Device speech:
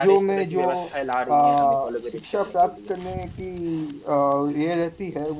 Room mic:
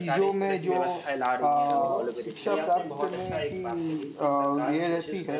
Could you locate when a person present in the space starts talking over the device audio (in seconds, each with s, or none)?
1.7 s